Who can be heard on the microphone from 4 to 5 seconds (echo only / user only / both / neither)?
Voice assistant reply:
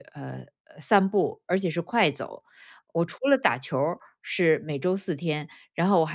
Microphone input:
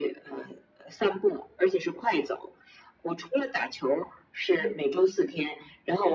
both